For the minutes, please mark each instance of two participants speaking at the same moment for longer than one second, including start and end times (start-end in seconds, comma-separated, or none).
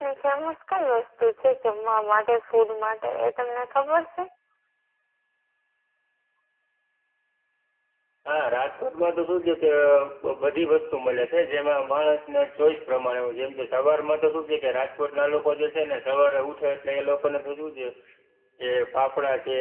none